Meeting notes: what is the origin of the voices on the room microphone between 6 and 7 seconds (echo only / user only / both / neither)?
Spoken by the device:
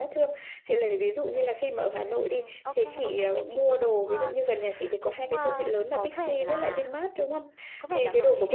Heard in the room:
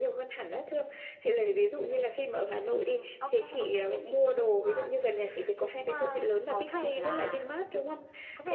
echo only